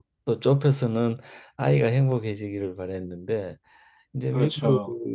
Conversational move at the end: listening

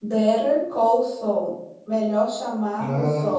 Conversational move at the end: listening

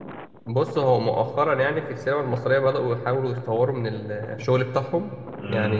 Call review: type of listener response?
listening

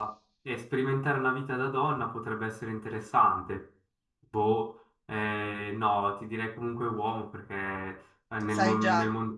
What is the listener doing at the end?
listening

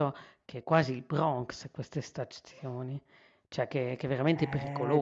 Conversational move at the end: taking over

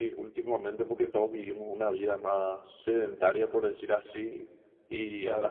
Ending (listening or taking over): listening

